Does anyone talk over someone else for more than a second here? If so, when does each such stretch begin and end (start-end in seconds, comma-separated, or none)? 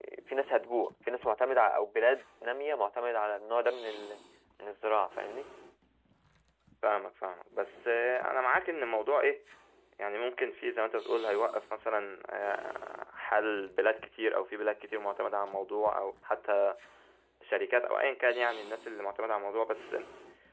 none